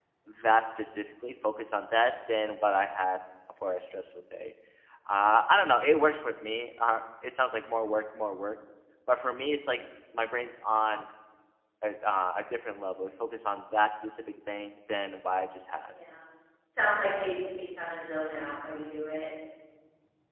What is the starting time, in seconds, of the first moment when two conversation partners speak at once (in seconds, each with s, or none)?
none